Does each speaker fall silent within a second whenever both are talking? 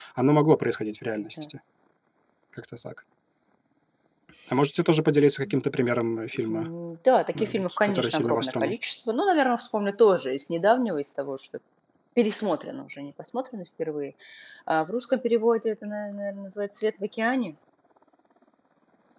No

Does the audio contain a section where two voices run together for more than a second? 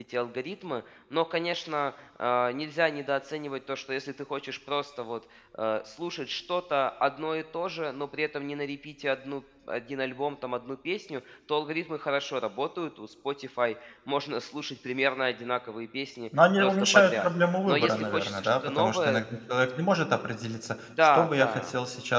Yes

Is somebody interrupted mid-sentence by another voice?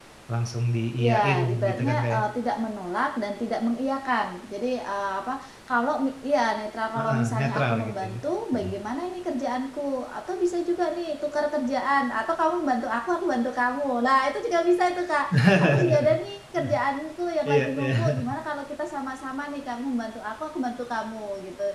Yes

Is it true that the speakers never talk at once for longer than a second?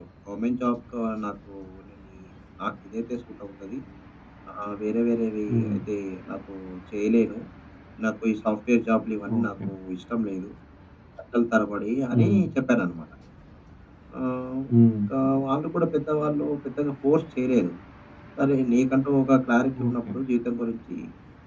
Yes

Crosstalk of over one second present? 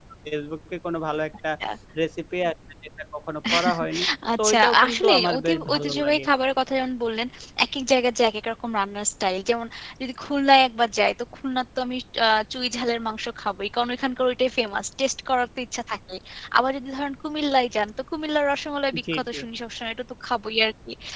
Yes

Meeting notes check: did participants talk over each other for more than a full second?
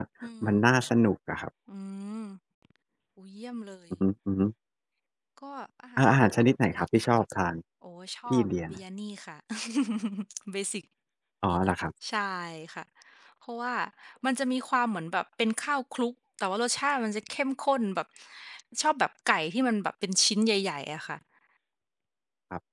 No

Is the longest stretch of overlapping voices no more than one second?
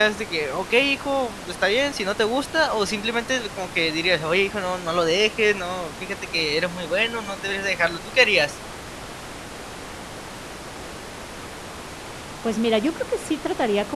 Yes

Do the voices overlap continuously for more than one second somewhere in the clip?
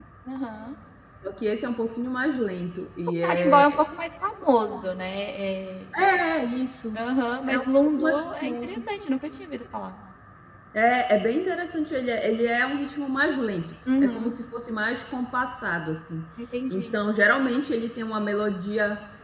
Yes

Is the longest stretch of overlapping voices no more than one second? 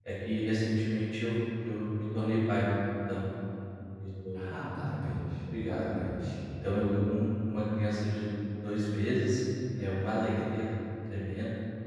Yes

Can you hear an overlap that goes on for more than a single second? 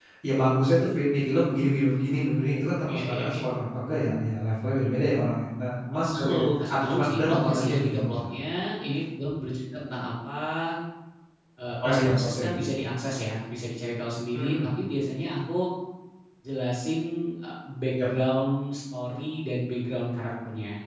Yes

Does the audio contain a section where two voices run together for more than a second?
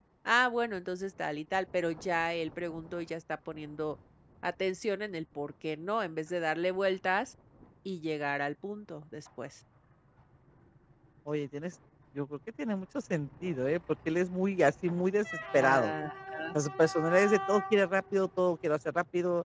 No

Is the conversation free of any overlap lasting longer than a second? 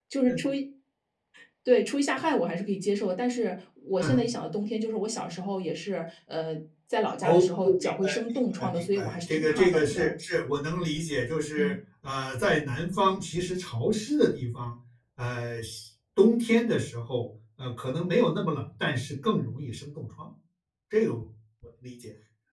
No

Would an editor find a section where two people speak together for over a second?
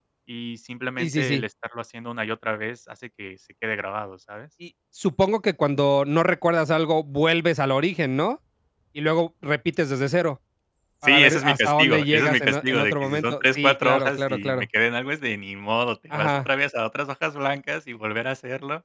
Yes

